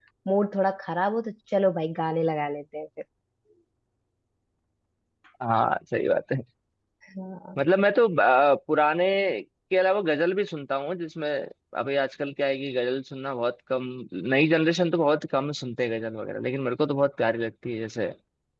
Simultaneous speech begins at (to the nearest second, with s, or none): none